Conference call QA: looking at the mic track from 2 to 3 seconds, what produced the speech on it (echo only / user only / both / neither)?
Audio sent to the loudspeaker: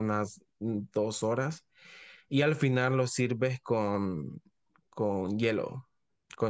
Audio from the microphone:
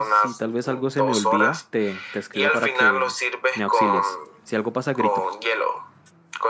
both